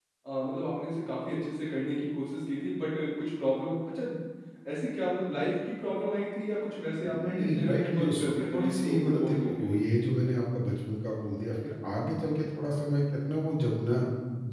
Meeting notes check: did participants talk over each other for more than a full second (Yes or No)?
Yes